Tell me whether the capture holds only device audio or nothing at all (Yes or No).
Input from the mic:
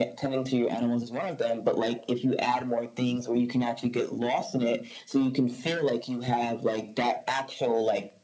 Yes